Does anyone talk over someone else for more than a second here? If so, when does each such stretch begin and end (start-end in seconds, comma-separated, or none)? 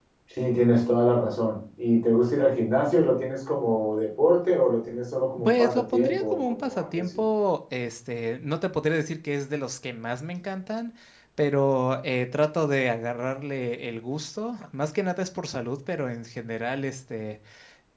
5.4-7.2